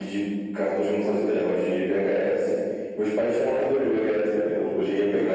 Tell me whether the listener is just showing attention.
Yes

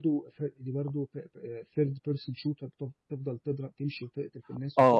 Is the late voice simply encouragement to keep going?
No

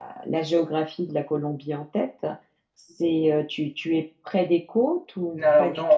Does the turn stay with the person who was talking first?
No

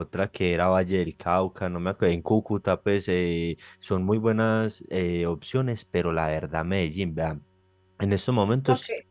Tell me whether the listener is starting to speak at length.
No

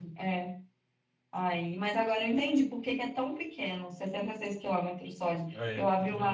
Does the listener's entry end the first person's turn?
No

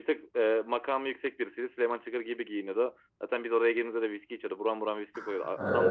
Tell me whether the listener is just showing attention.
Yes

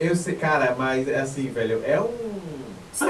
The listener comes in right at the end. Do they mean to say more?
Yes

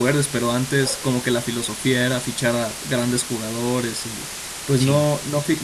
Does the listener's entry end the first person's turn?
No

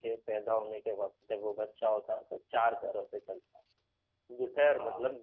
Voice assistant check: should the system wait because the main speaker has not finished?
Yes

